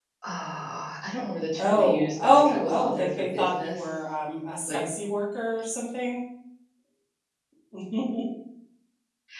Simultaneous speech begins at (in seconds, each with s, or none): 1.6 s